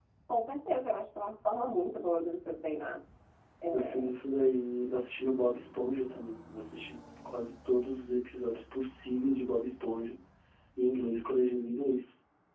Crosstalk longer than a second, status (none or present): none